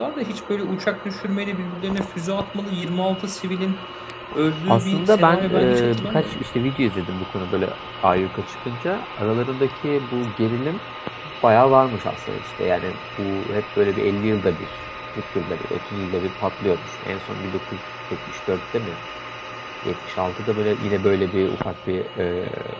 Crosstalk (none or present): present